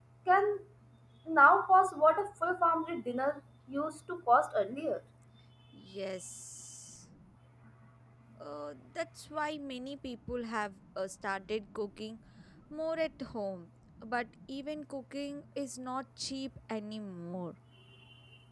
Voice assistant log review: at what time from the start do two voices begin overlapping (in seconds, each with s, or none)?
none